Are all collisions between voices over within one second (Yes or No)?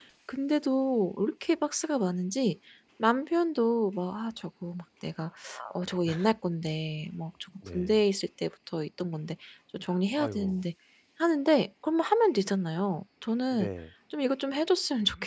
Yes